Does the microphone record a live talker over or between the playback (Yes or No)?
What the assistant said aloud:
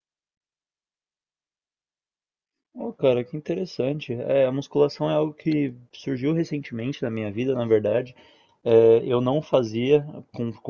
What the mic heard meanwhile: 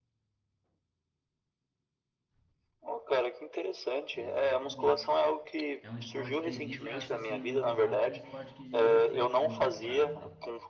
Yes